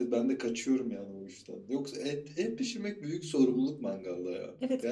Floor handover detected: Yes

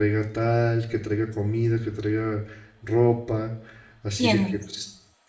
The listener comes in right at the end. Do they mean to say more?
No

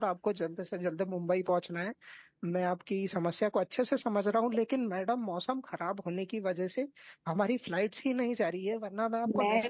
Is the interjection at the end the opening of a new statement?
Yes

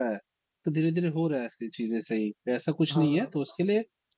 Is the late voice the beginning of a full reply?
No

